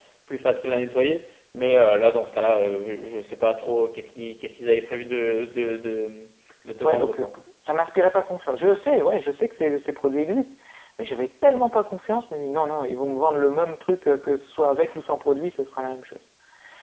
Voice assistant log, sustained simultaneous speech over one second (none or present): none